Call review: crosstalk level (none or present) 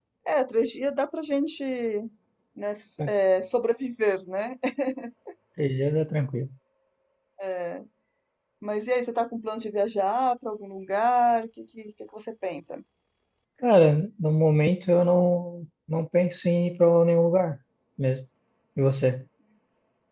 none